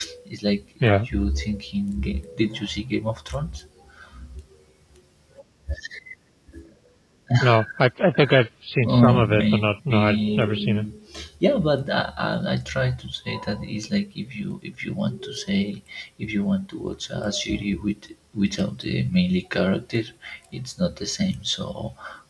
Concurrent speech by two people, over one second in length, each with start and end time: 8.8-10.9

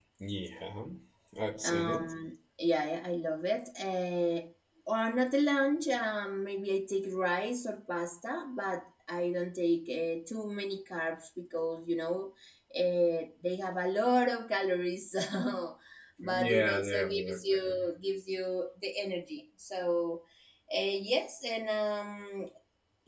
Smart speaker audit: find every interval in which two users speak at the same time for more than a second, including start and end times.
16.2-17.6

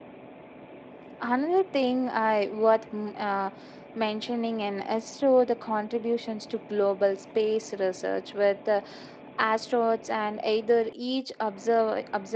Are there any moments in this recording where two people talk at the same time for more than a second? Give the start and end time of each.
none

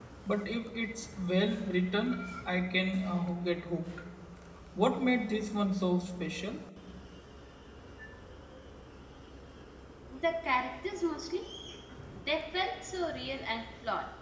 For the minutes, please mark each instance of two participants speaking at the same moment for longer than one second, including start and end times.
none

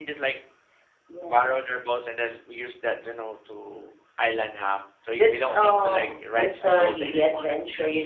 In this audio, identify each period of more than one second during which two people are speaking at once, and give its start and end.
5.1-7.4

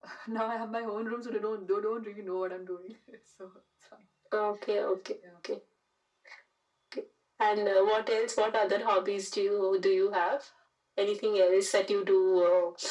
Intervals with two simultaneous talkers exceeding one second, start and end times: none

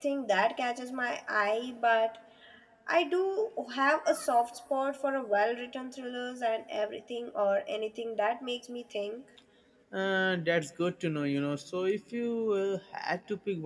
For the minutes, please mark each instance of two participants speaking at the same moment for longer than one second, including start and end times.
none

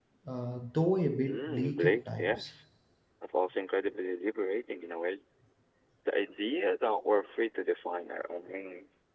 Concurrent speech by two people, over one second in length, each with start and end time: 1.3-2.5

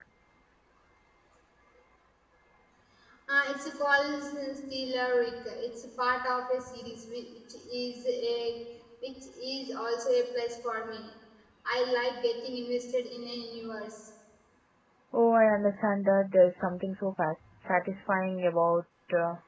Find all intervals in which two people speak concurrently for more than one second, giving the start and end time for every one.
none

